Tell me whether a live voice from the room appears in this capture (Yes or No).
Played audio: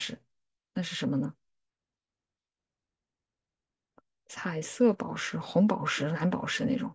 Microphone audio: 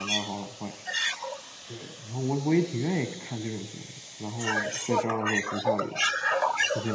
Yes